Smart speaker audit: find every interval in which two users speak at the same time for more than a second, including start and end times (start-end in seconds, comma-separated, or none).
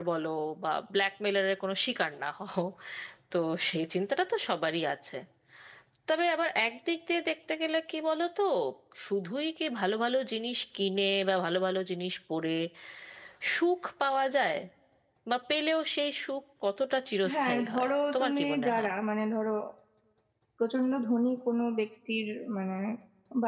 17.3-18.9